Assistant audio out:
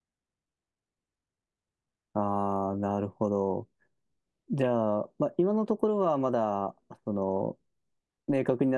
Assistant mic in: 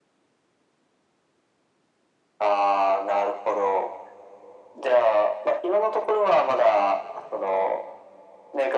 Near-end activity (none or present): none